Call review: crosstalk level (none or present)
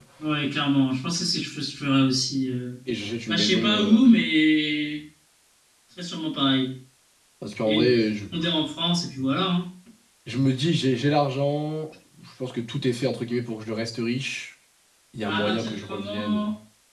present